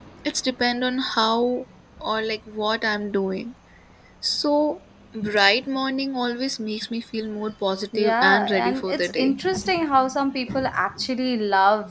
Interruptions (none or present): present